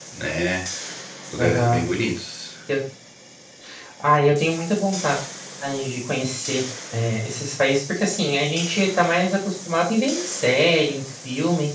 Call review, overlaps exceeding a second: none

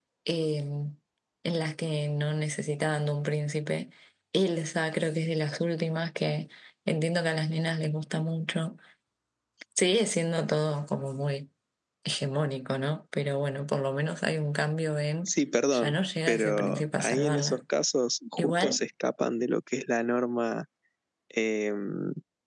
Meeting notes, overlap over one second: present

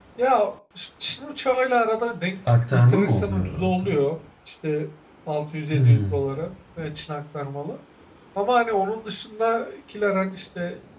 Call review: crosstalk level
present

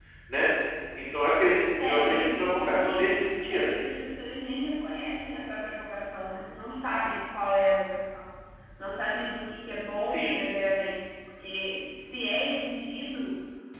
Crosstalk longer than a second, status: present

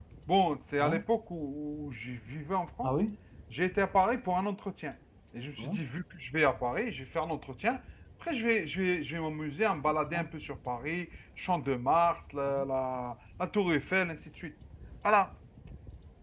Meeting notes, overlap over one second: none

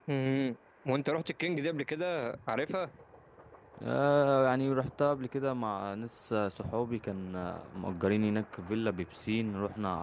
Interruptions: none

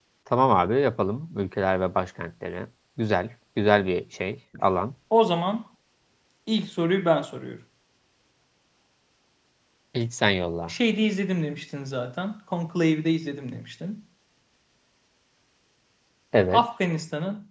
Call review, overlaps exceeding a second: none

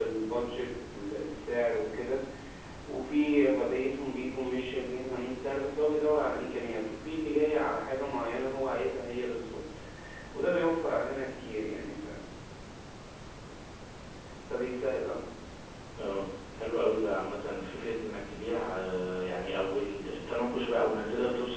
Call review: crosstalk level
none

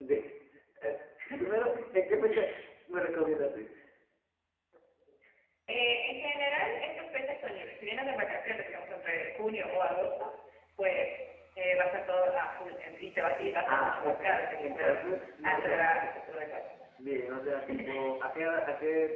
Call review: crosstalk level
present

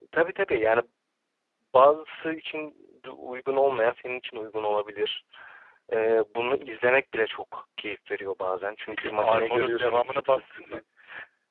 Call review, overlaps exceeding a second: present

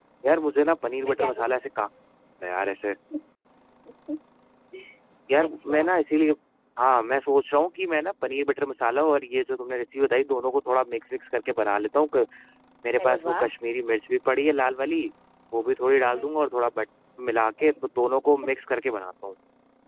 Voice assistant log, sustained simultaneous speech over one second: none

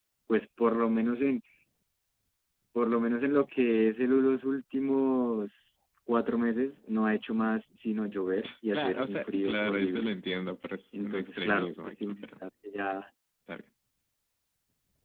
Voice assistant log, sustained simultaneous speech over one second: present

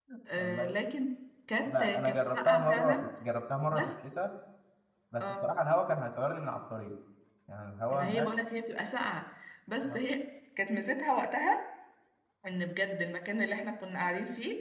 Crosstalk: present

